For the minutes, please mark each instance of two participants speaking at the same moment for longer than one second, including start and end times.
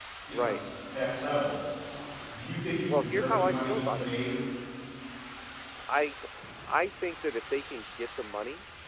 2.9-4.1

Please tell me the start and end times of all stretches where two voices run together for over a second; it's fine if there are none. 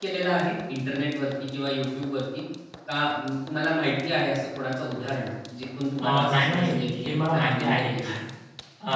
6.0-8.1

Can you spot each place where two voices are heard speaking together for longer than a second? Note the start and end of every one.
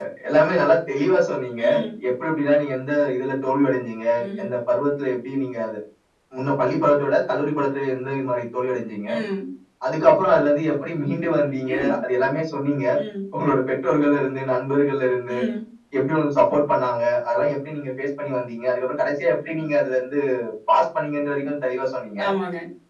none

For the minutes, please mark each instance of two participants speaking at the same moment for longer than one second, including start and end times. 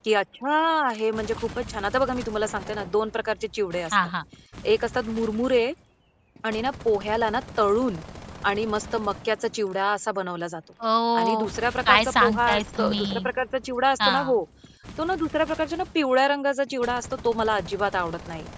11.9-13.3

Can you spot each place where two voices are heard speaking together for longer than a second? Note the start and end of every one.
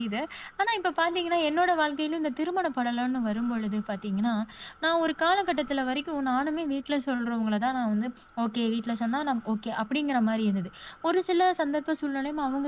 none

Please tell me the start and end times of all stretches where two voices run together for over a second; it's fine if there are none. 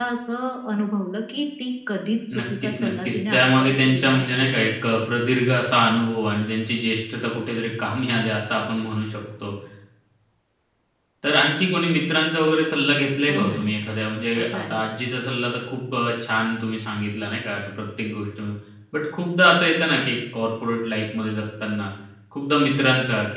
2.4-4.6

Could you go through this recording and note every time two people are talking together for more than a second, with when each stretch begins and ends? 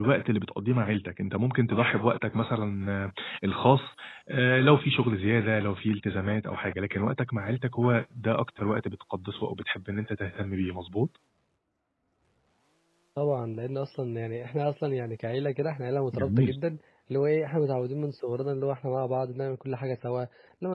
none

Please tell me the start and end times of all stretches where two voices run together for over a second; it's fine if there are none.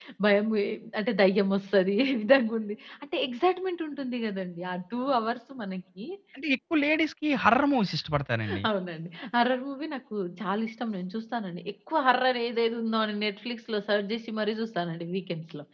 none

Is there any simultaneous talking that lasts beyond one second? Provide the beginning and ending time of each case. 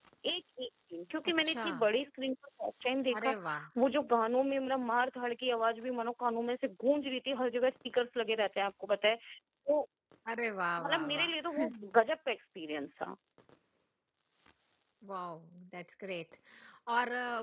none

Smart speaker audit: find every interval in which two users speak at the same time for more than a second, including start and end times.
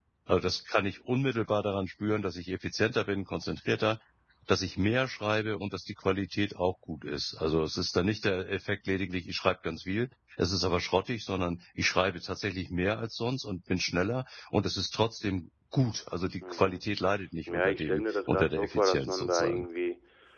17.5-19.7

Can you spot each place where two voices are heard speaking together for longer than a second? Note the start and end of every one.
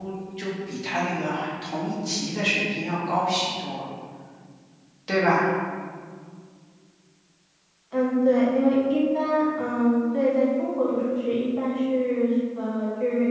none

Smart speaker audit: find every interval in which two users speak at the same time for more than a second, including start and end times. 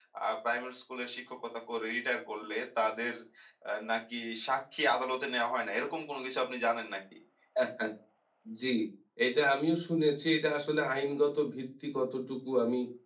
none

